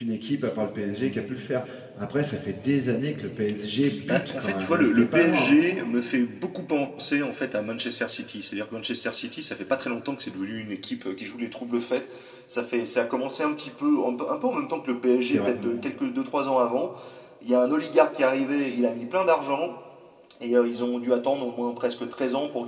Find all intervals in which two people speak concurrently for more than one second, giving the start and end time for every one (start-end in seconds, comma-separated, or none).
4.1-5.6